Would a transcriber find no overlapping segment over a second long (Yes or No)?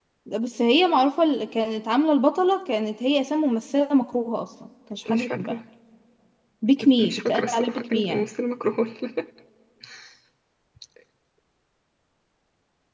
No